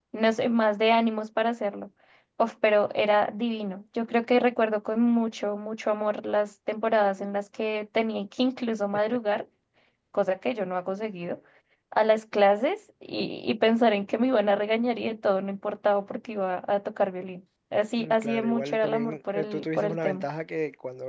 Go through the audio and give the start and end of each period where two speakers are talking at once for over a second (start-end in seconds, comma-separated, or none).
18.0-20.2